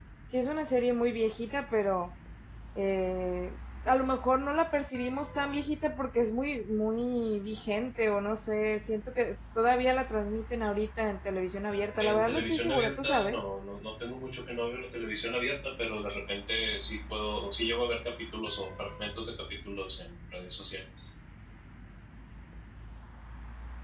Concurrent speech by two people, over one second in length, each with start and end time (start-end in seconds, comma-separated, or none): 12.0-13.4